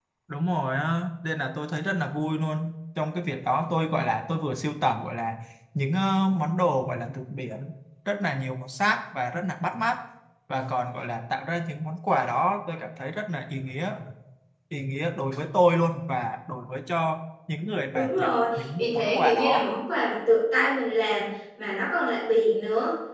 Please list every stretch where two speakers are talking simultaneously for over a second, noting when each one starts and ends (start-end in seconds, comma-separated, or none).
17.9-19.7